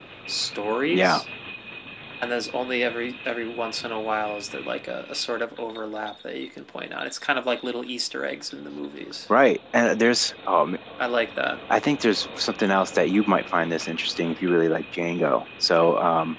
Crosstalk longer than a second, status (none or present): none